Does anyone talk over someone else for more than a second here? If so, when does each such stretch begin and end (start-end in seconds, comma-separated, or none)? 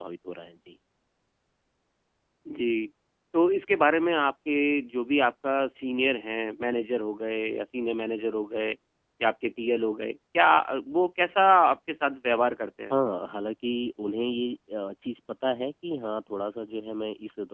none